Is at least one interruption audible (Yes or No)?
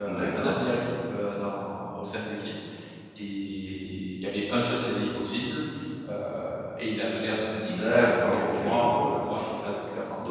Yes